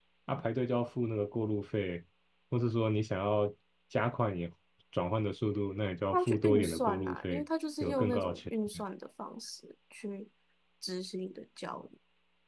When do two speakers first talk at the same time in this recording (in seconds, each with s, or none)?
6.1 s